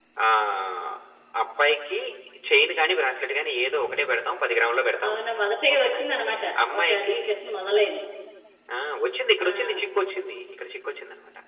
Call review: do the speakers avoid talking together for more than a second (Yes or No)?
Yes